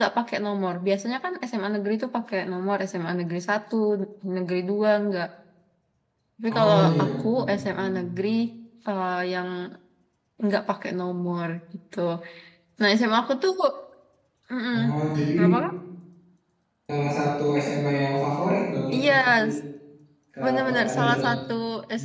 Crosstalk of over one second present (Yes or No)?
Yes